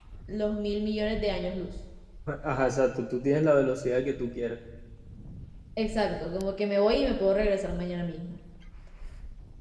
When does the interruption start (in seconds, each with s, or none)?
none